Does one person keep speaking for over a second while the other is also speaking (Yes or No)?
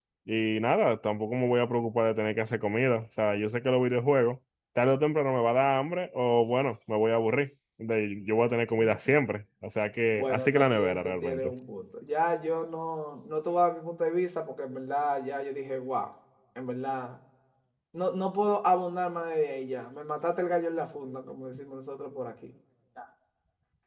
Yes